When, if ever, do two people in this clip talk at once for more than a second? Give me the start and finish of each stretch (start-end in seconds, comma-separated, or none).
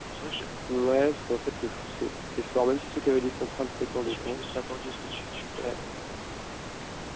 none